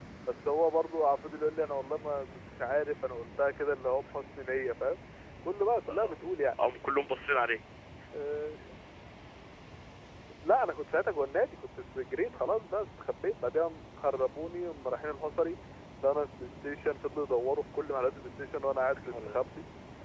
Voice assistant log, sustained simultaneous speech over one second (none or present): none